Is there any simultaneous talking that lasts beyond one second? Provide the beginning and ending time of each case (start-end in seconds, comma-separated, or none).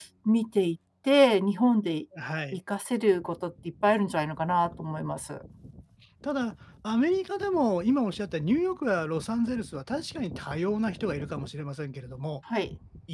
none